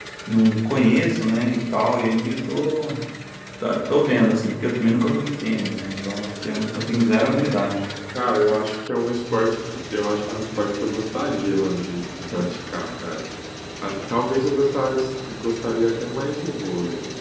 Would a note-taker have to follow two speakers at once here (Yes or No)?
No